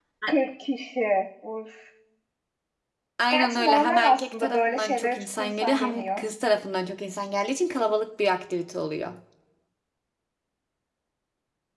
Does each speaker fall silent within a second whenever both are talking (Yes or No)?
No